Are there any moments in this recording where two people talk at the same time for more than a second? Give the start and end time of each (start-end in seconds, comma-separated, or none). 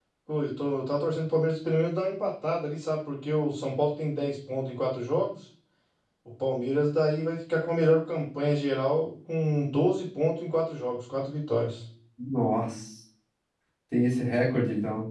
none